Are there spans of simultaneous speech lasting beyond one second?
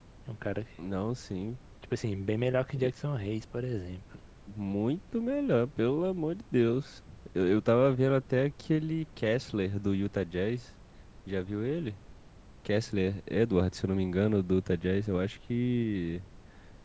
No

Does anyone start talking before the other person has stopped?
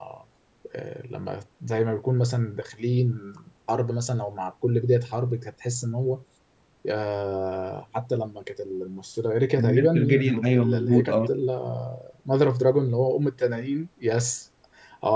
Yes, from 9.6 s

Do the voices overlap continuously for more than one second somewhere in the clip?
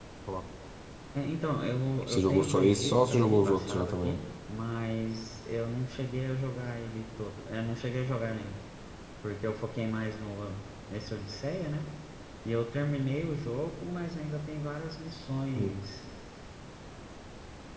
Yes, from 2.0 s

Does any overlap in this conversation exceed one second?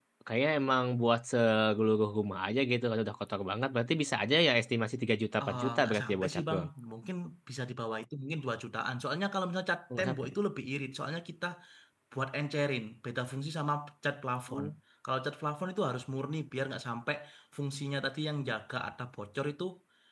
Yes, from 5.4 s

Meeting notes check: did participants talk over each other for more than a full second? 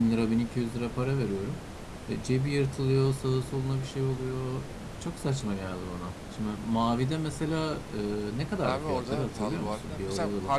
Yes, from 8.6 s

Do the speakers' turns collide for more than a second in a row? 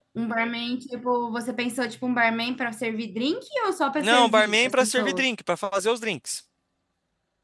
Yes, from 4.0 s

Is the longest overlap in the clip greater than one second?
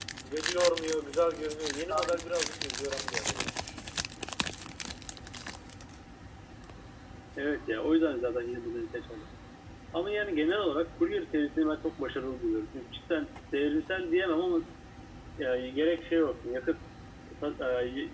No

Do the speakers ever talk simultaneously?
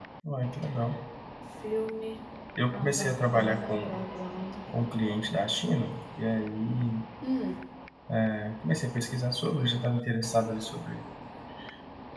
Yes, from 2.7 s

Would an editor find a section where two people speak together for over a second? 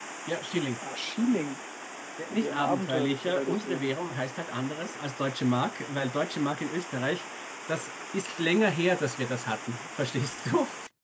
Yes, from 2.3 s

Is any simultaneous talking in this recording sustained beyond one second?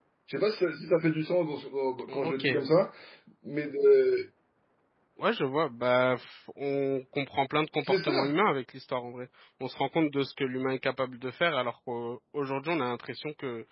No

